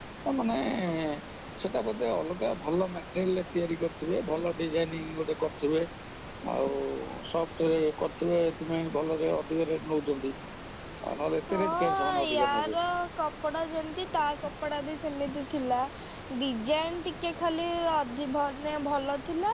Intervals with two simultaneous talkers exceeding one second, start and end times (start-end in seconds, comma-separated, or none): 11.5-12.8